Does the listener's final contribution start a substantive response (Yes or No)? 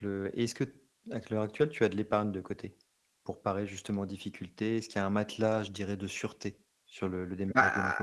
Yes